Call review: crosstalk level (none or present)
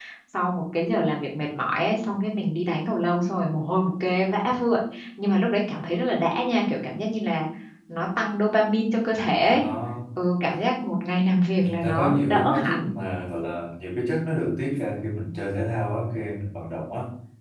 present